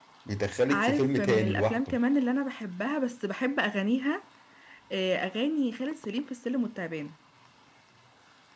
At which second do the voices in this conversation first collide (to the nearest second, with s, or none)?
1 s